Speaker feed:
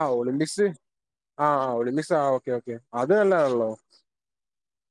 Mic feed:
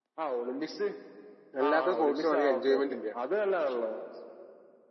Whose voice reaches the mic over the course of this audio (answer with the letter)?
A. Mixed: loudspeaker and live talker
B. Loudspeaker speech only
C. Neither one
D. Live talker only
A